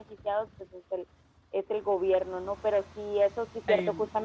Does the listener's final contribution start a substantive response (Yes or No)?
No